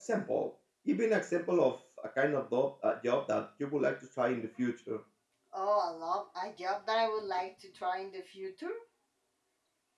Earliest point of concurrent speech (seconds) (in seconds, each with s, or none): none